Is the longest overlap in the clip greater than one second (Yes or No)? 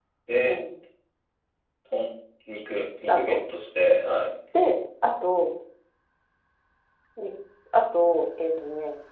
No